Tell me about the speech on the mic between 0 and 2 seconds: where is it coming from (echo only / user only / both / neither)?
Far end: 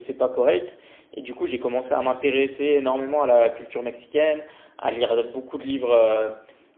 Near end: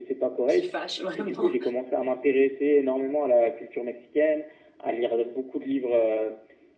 both